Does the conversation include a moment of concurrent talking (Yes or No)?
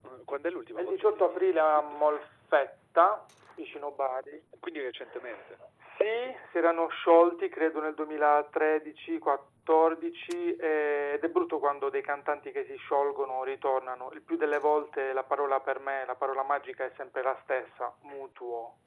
Yes